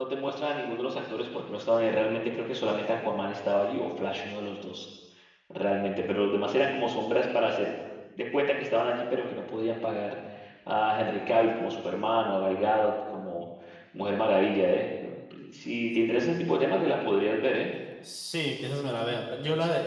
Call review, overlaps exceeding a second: none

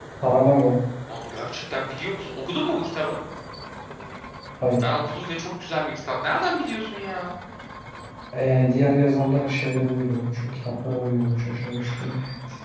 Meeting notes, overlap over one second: none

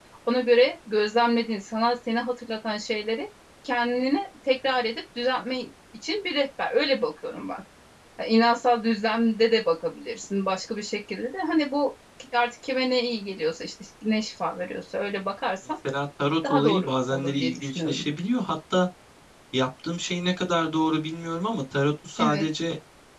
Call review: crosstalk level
present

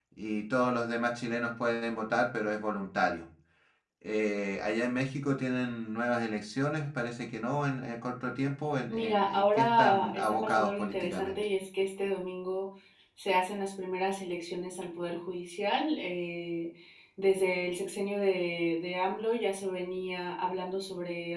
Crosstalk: present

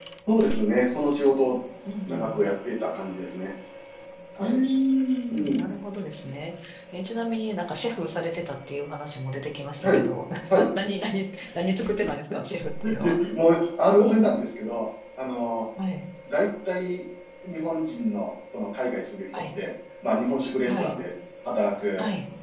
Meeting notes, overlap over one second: none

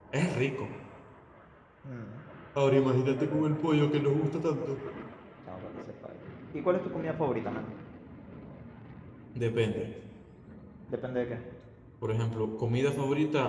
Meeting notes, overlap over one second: none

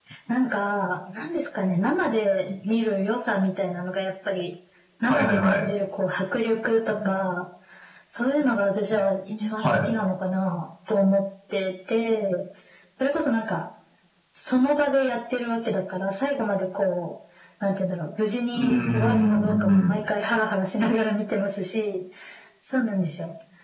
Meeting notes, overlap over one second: present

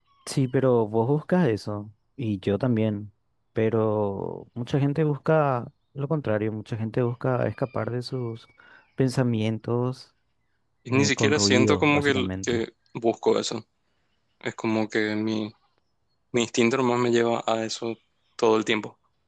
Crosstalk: present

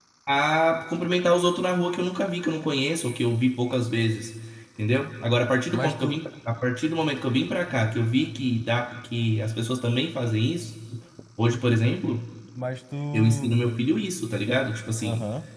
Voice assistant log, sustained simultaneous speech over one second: none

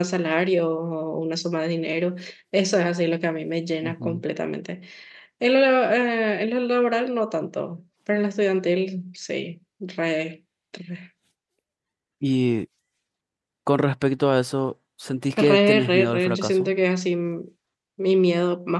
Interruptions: present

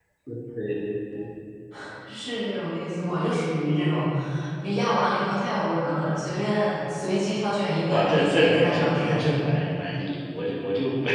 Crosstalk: present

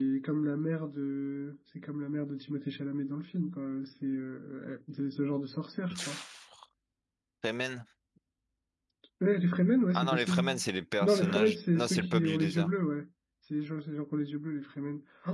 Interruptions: present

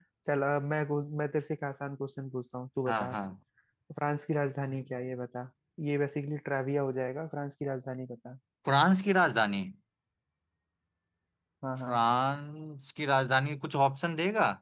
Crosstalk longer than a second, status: none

